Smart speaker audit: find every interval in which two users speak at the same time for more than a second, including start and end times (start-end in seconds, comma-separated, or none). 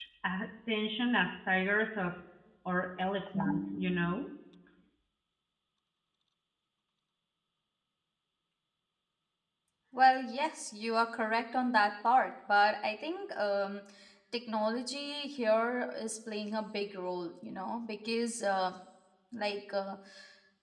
none